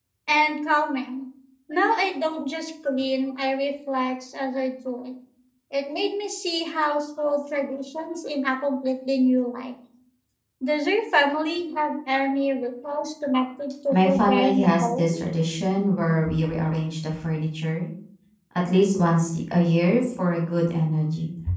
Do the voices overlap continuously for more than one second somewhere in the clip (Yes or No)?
Yes